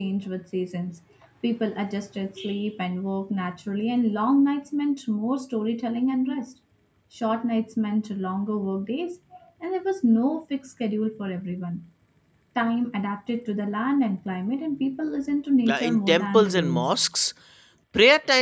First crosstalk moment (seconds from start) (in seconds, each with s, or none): 15.6 s